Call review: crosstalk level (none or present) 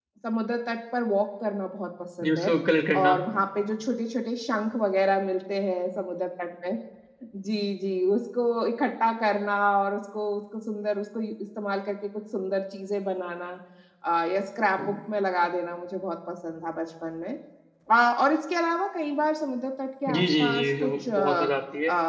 present